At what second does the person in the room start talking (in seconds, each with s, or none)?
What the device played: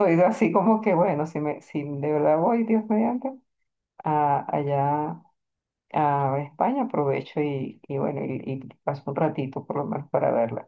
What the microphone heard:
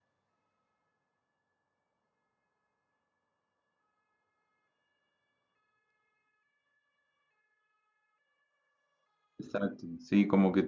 9.4 s